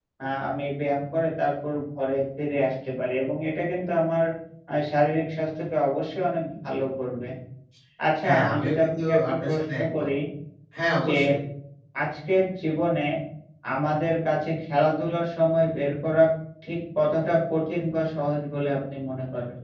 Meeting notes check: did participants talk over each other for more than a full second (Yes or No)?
Yes